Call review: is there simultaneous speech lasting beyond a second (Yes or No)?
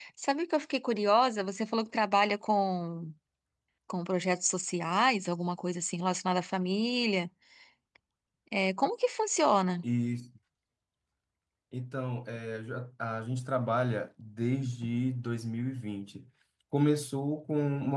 No